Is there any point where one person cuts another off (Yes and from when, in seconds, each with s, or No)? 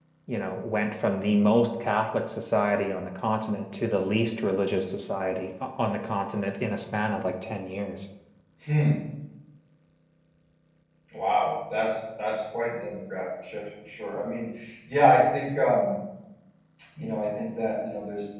No